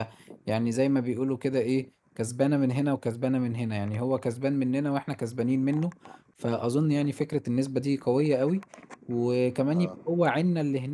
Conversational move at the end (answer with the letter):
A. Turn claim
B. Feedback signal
B